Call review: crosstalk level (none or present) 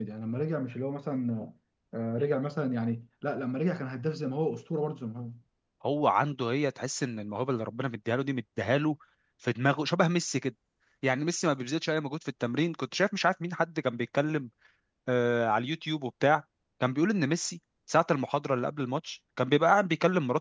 none